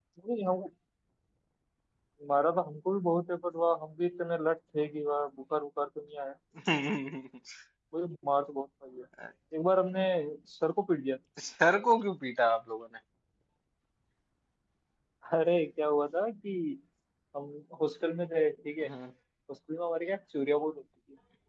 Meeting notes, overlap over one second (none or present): none